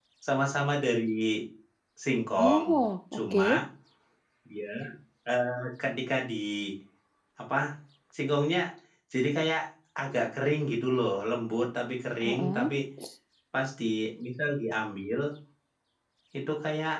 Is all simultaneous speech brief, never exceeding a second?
Yes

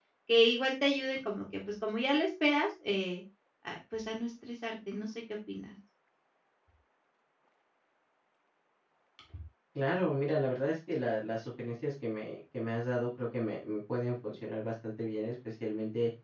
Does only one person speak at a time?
Yes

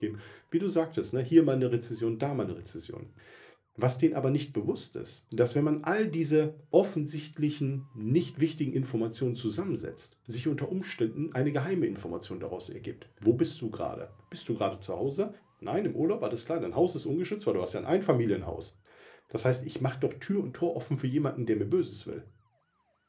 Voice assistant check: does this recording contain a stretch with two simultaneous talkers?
No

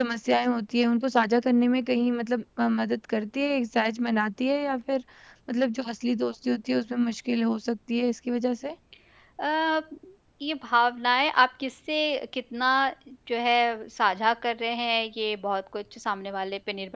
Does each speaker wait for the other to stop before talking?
Yes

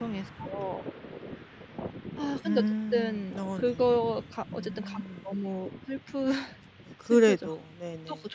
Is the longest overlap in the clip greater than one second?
Yes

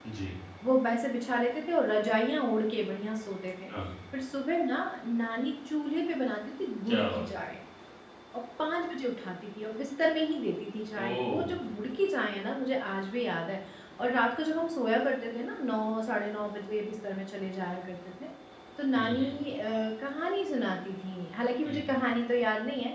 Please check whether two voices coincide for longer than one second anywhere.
No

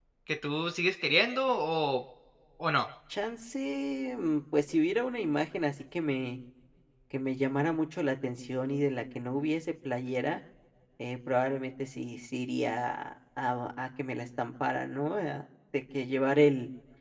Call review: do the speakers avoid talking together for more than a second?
Yes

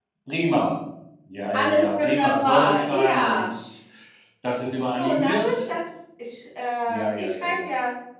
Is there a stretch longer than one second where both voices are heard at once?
Yes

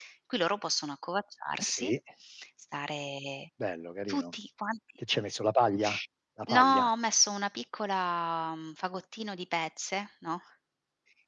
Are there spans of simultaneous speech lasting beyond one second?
No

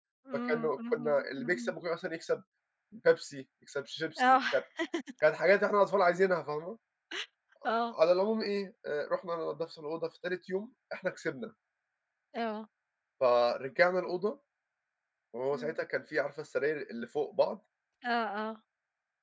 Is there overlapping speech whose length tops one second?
Yes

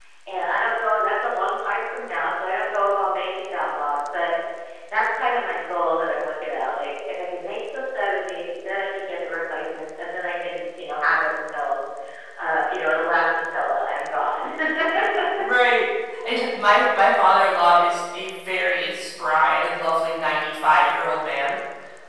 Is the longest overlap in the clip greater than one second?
No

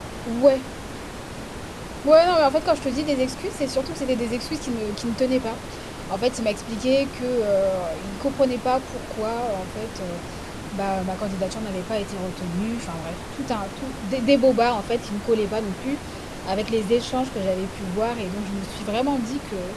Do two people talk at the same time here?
No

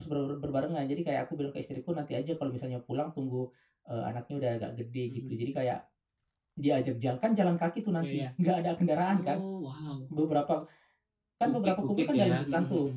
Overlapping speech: Yes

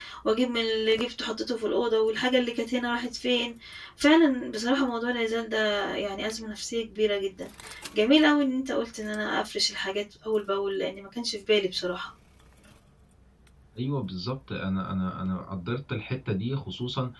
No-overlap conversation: Yes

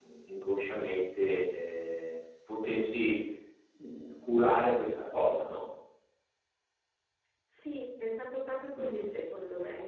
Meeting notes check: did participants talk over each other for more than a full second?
No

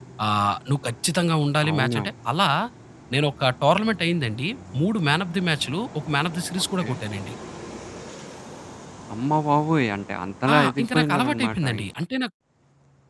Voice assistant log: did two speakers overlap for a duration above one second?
Yes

